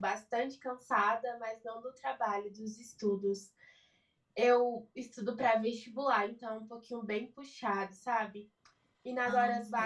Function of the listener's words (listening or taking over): listening